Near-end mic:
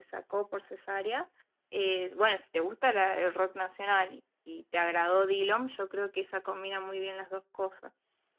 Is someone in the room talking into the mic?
No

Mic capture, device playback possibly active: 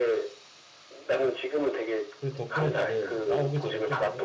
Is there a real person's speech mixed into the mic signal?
Yes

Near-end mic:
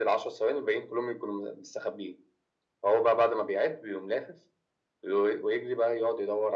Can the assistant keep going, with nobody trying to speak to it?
Yes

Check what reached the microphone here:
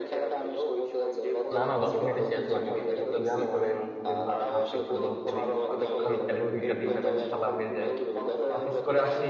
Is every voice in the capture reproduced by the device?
No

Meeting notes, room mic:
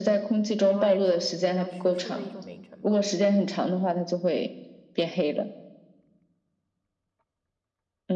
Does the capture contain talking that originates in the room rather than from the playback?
Yes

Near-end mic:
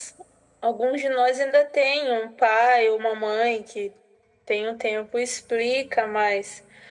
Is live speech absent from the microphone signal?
Yes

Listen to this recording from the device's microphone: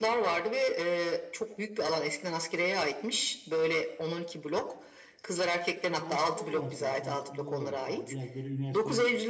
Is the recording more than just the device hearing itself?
Yes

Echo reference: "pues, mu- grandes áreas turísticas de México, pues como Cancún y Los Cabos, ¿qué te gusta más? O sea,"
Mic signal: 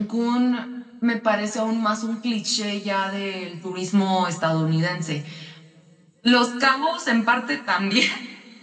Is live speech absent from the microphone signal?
No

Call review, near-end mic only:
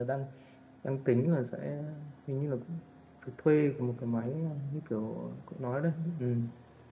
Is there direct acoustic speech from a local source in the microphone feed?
Yes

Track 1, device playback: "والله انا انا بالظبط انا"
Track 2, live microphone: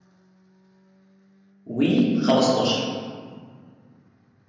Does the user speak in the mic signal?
Yes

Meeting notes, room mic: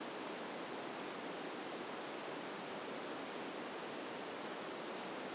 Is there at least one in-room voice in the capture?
No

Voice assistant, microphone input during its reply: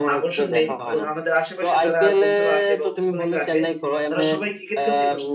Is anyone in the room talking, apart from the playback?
Yes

